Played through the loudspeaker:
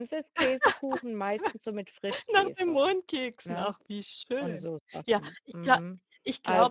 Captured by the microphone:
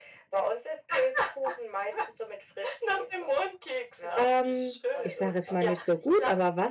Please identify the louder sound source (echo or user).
user